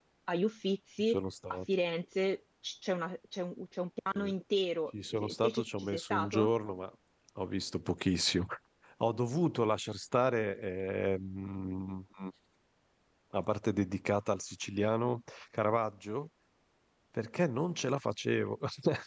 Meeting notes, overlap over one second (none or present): present